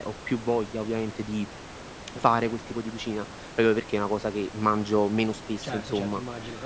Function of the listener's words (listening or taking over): taking over